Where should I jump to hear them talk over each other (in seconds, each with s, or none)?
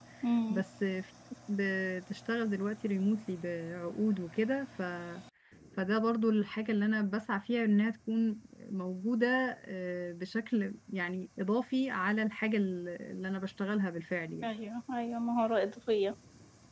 none